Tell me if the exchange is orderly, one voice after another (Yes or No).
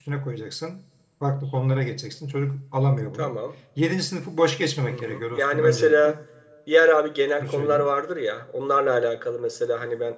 No